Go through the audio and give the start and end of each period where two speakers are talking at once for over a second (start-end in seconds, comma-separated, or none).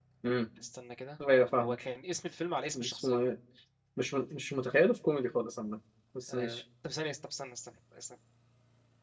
none